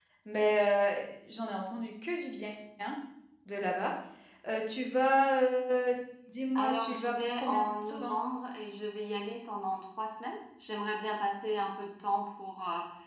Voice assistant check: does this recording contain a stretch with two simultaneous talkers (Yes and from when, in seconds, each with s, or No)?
Yes, from 6.5 s